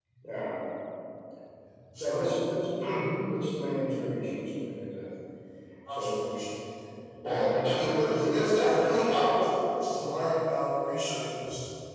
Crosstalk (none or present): present